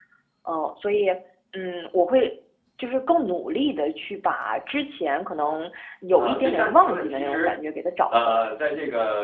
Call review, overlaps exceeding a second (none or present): present